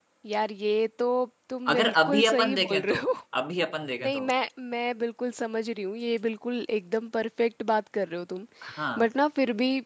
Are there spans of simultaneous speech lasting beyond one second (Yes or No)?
Yes